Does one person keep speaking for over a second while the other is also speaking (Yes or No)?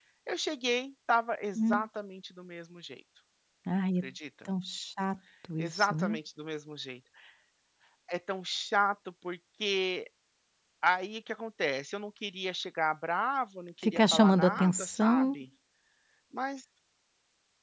Yes